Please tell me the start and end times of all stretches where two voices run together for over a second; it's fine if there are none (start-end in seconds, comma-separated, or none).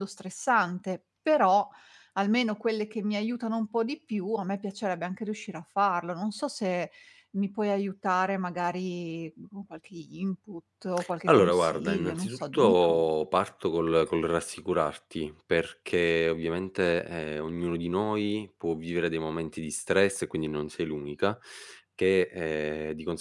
11.3-13.0